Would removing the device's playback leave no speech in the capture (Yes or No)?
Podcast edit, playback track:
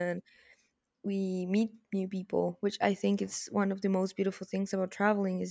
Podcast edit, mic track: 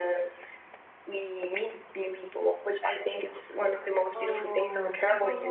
No